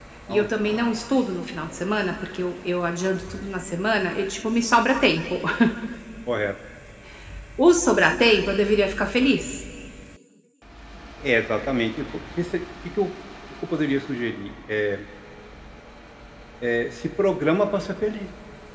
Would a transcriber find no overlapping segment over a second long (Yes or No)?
Yes